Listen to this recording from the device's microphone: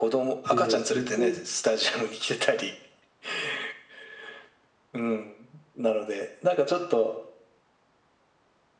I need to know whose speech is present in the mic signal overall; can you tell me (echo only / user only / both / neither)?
both